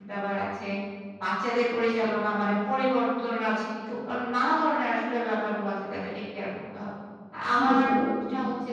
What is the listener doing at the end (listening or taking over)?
listening